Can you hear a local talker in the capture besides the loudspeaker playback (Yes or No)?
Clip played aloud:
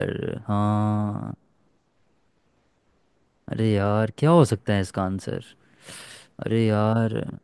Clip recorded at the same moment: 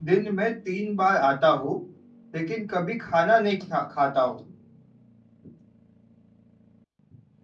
Yes